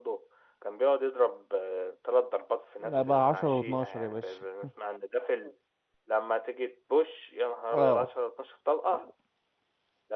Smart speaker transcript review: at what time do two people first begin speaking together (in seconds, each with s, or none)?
2.8 s